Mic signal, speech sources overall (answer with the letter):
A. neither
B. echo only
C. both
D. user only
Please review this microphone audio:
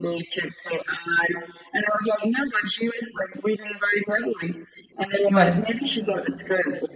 C